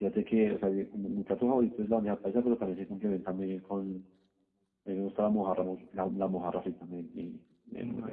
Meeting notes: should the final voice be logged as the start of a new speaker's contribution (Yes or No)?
No